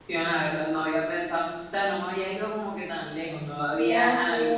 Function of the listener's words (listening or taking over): taking over